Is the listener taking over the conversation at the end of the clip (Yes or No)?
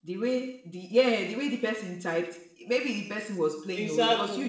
No